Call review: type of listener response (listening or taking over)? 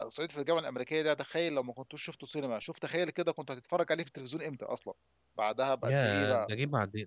taking over